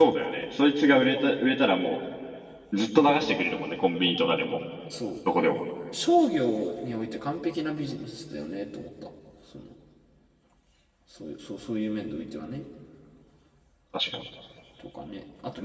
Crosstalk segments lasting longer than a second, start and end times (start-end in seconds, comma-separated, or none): none